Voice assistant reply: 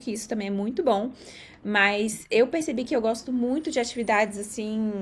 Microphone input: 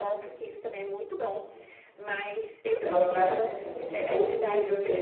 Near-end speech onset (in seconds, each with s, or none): 2.8 s